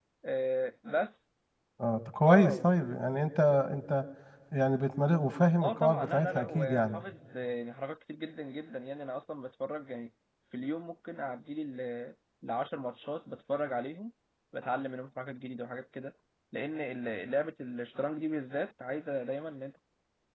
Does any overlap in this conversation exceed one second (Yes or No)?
Yes